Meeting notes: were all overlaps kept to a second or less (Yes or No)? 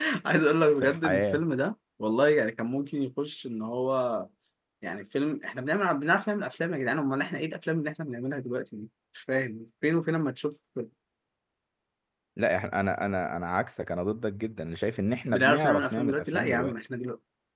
No